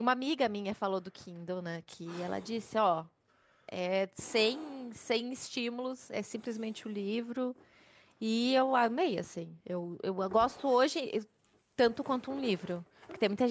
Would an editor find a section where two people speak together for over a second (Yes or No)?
No